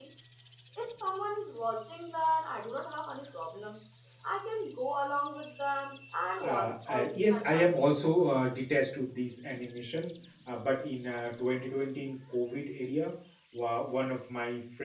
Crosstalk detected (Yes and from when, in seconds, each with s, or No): Yes, from 6.4 s